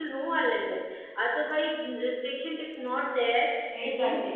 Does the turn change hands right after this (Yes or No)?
Yes